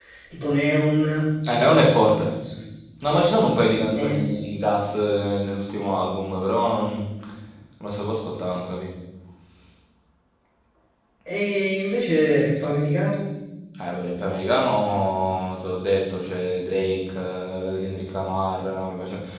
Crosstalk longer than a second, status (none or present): none